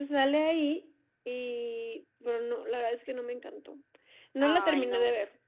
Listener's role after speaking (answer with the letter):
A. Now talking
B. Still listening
B